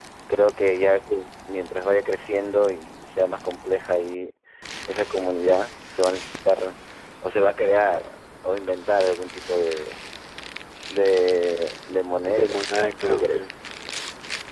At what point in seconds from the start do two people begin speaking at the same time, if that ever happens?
12.3 s

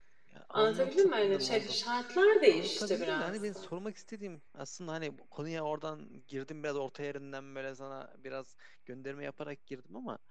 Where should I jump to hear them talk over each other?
0.5 s

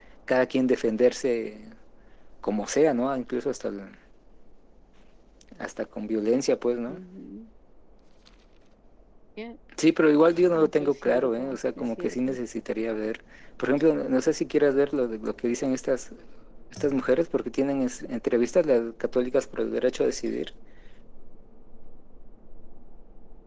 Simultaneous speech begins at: 10.6 s

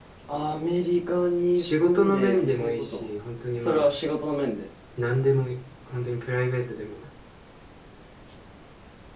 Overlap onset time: 1.6 s

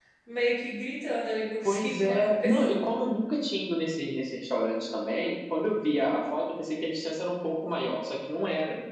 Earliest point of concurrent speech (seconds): 1.6 s

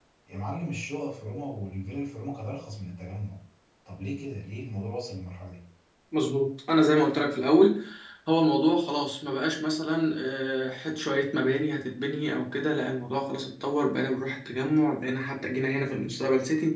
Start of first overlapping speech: none

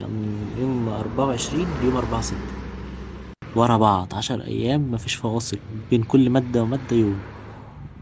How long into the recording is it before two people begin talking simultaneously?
none

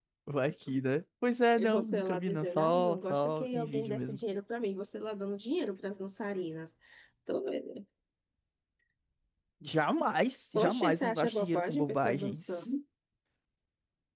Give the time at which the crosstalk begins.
1.6 s

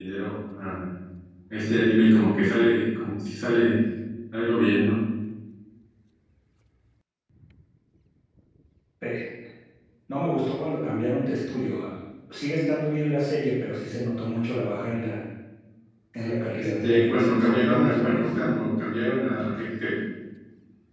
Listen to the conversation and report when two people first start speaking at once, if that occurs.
16.6 s

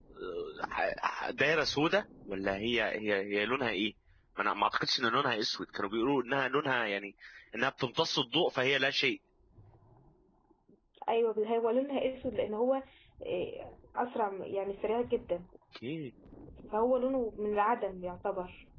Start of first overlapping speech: none

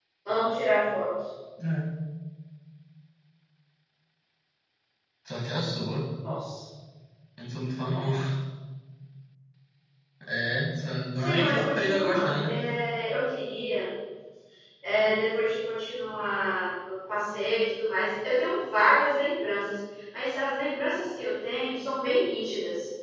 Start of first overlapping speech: 11.2 s

